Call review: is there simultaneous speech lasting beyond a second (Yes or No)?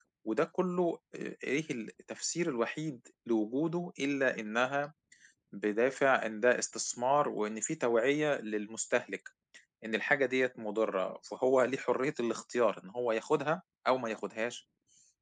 No